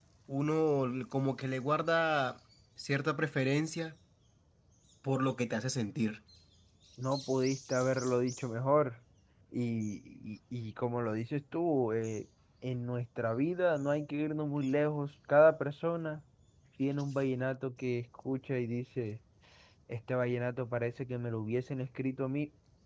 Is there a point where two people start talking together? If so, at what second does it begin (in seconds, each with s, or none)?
none